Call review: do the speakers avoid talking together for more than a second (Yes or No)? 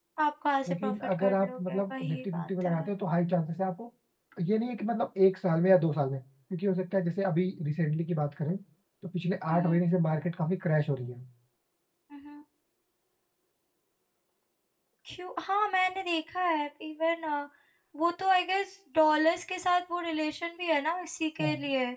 No